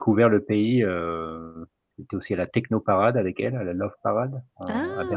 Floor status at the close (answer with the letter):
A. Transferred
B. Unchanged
A